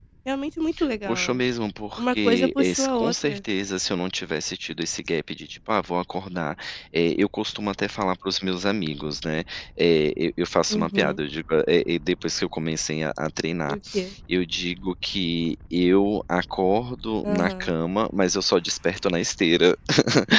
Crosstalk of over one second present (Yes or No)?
Yes